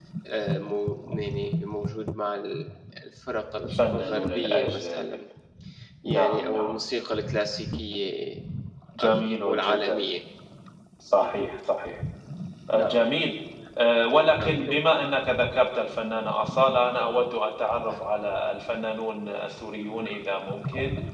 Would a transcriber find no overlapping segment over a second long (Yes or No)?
No